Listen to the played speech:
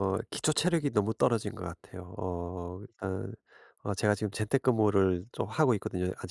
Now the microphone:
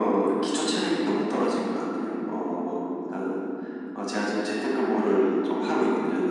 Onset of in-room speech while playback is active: none

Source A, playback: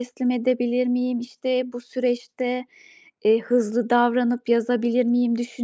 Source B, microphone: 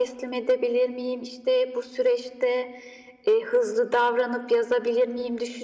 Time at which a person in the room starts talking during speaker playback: none

